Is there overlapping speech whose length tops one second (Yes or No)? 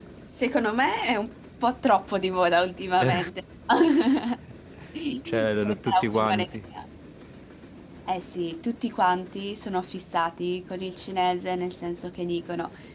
Yes